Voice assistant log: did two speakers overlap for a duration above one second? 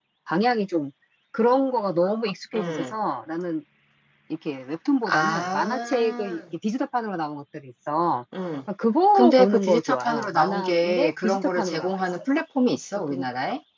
Yes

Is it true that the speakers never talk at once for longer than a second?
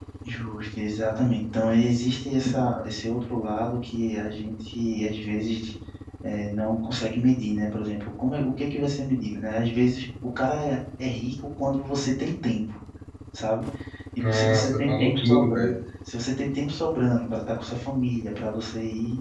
No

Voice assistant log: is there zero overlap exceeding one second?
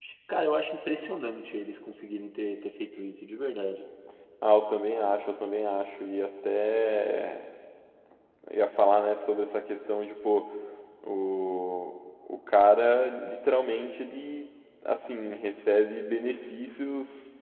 Yes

